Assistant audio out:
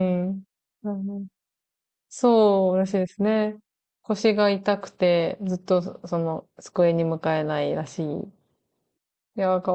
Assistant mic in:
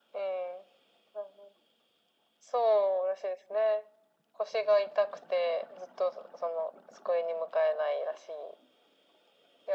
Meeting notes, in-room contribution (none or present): none